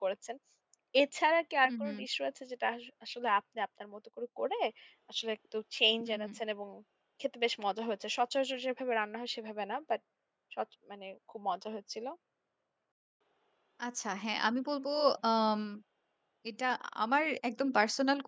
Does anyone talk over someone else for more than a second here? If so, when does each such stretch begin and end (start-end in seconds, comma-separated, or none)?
none